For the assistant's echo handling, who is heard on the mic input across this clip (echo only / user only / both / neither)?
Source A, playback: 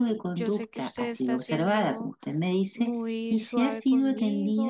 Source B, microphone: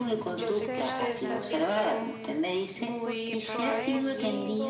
both